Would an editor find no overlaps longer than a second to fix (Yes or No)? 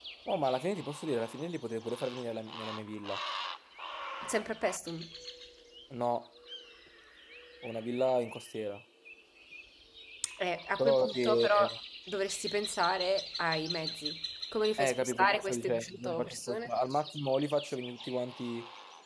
No